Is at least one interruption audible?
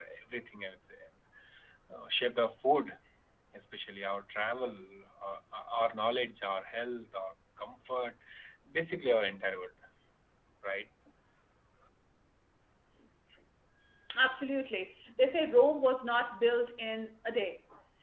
No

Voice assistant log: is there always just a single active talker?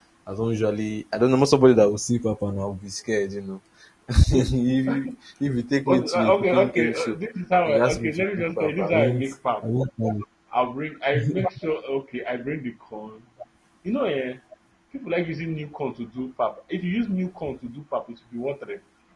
No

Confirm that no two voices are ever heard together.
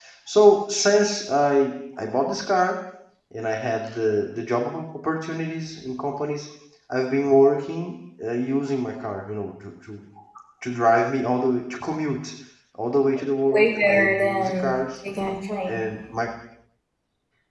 No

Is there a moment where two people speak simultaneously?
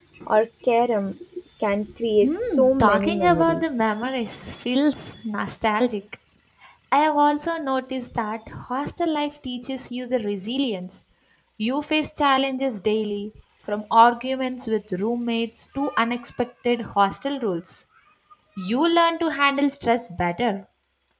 Yes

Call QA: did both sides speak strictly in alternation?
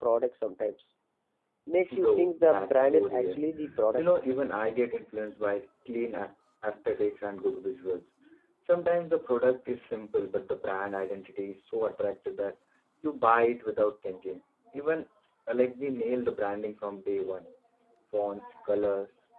No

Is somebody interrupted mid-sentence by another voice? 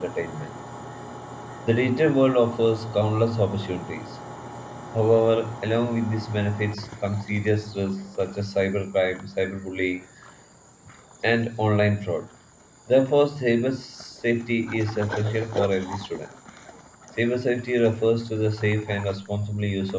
No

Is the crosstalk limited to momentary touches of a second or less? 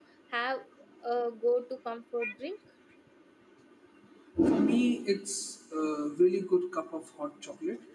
Yes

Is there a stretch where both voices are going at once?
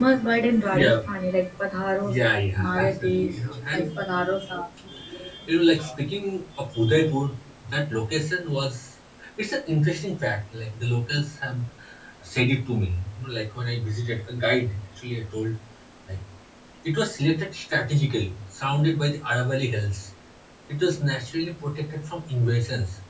Yes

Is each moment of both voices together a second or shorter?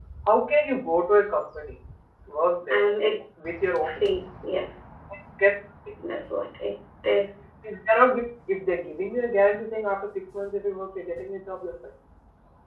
Yes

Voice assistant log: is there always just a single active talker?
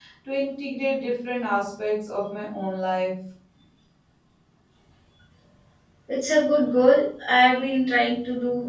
Yes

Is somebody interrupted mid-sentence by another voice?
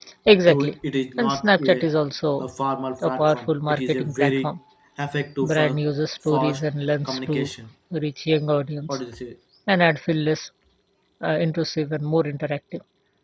Yes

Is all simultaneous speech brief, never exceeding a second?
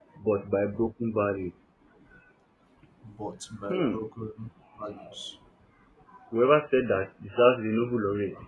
Yes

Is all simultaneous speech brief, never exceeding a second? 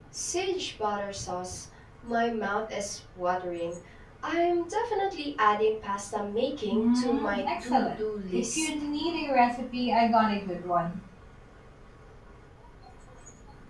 No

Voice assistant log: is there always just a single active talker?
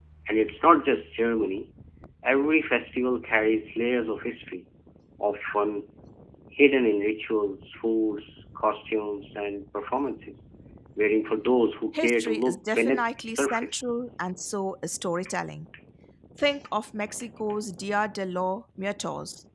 No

